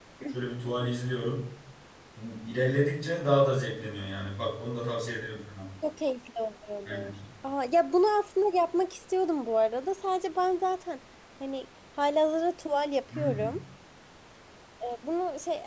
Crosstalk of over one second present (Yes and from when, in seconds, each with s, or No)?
No